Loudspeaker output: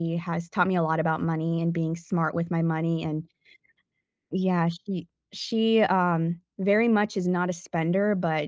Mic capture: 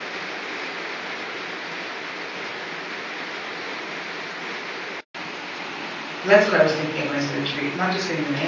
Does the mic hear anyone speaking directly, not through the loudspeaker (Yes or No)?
Yes